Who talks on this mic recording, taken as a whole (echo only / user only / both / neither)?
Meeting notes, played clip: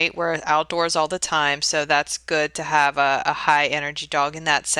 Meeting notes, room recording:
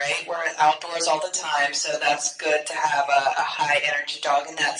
echo only